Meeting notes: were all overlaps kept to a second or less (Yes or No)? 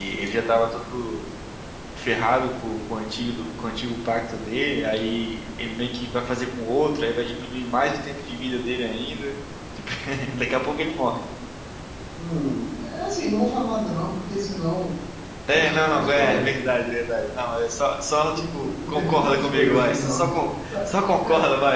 No